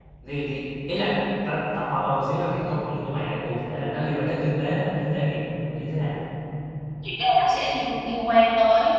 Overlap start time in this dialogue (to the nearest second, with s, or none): none